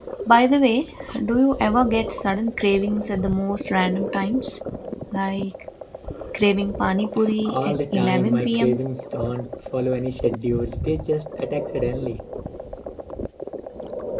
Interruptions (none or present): present